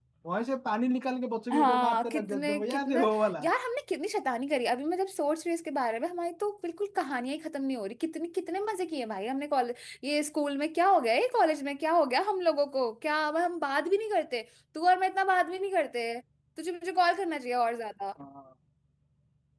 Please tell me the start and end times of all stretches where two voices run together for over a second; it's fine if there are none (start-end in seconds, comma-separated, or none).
1.5-3.0